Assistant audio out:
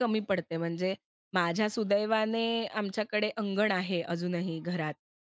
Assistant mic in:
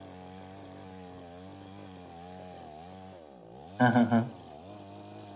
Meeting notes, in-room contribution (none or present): present